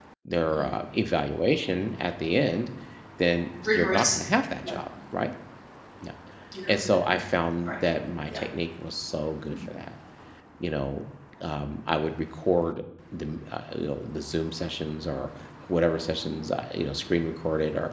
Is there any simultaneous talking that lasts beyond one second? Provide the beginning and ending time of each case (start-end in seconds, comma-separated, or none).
none